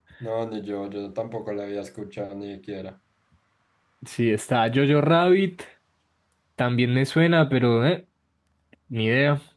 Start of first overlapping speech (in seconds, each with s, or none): none